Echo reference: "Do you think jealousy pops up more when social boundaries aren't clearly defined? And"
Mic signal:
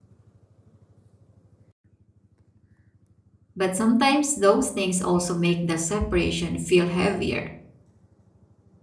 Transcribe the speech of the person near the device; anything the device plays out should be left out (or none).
But sometimes those things also make the separation feel heavier